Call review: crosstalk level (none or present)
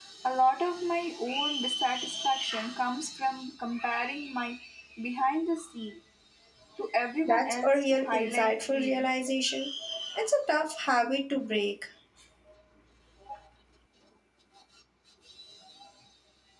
present